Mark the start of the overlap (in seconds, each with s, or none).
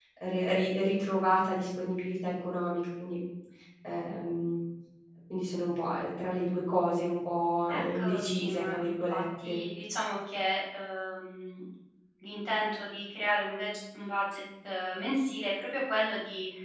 7.7 s